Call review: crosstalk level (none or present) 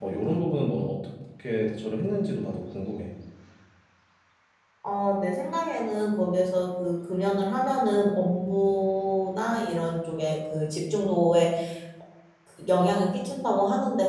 none